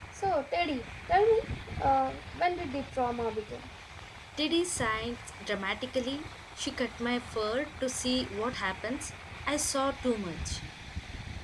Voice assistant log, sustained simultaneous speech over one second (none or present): none